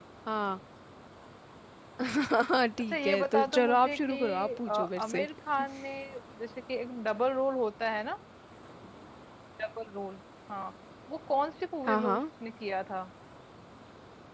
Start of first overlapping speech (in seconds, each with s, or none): 2.9 s